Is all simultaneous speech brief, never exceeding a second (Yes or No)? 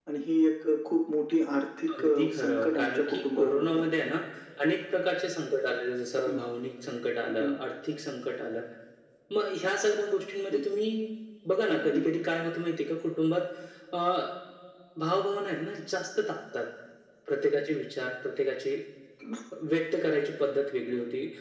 No